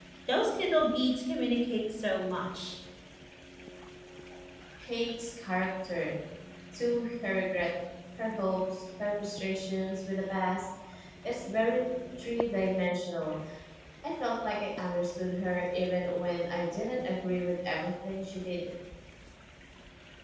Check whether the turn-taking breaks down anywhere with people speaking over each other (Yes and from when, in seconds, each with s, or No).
No